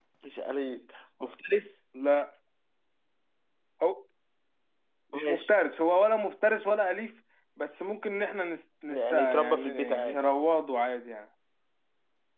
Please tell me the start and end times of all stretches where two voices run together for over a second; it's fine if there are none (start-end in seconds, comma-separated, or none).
8.9-10.2